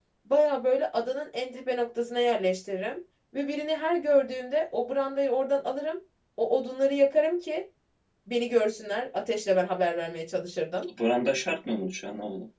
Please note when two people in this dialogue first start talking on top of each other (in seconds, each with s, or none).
none